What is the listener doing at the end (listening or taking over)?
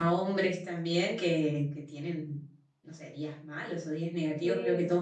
listening